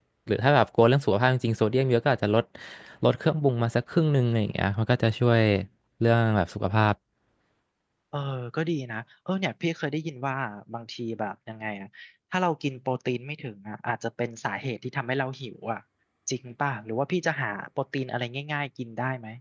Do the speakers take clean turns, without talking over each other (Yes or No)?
Yes